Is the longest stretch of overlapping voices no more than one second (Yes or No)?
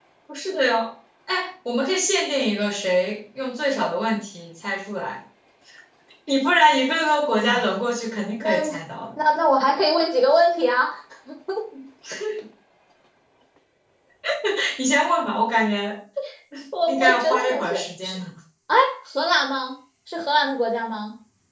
No